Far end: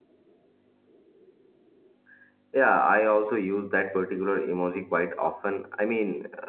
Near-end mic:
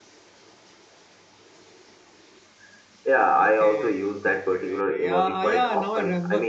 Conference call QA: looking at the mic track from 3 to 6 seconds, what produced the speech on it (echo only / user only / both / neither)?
both